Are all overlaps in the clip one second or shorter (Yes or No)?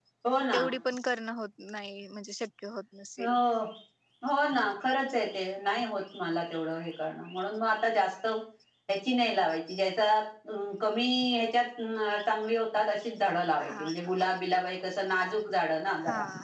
Yes